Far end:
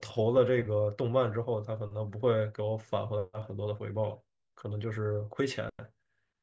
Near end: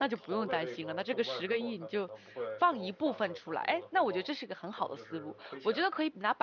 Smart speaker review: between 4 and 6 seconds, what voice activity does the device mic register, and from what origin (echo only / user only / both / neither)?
both